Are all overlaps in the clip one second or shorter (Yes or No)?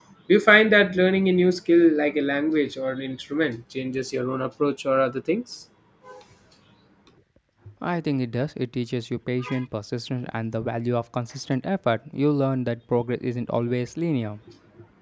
Yes